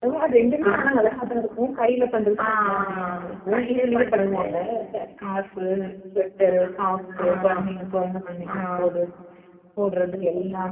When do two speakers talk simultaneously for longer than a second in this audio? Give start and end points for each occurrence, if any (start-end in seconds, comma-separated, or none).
2.4-4.4